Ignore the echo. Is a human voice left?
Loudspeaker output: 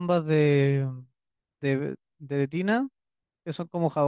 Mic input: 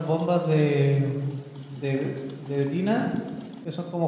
No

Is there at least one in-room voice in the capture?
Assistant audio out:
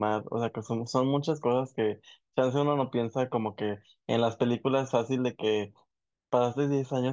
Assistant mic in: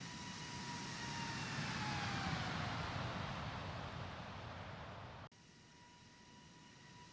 No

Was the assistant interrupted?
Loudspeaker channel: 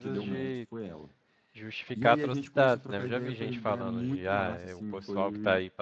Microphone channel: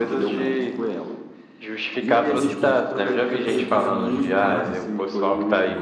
Yes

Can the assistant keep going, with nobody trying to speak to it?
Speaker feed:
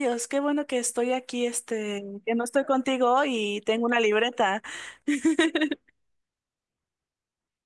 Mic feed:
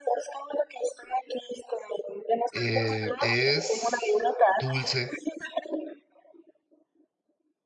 No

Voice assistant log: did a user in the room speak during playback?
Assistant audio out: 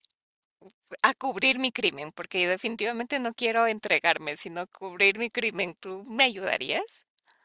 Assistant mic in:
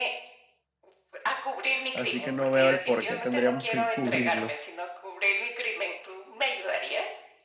Yes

